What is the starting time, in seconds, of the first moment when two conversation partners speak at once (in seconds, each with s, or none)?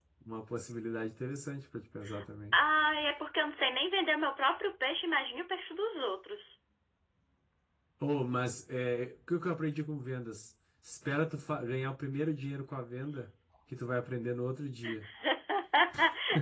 none